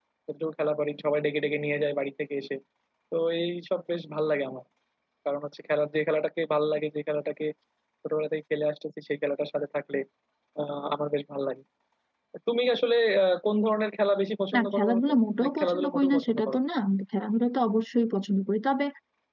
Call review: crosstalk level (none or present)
present